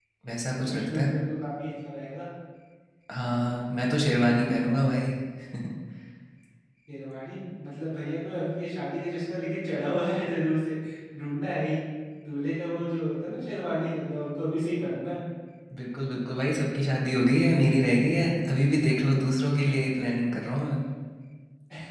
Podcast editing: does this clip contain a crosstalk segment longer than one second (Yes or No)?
No